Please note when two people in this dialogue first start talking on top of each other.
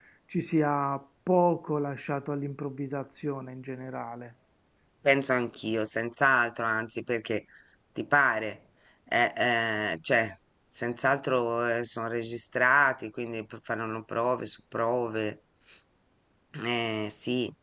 none

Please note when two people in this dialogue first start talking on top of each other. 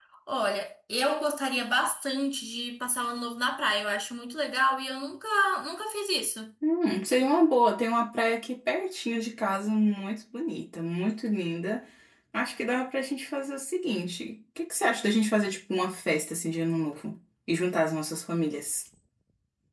none

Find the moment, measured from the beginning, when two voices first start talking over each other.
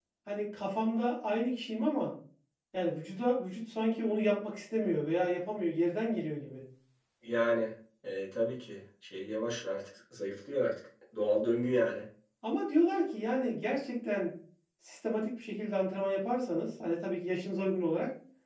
none

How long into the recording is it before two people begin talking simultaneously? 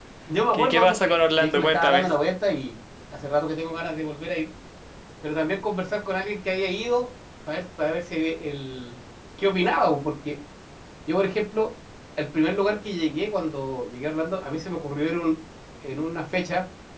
1 s

